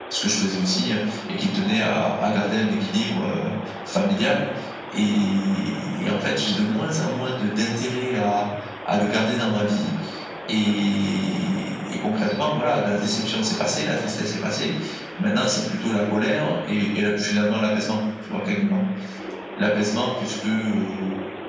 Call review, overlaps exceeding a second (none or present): none